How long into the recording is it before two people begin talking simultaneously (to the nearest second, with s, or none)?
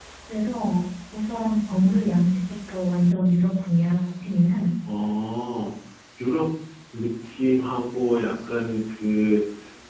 none